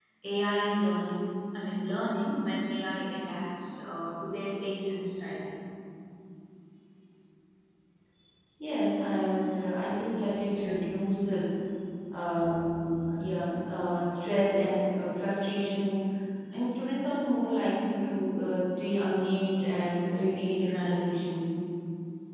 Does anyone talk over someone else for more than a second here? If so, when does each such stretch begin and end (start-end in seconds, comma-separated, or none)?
none